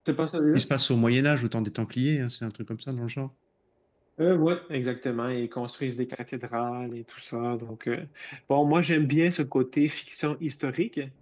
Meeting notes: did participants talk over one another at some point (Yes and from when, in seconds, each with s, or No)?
No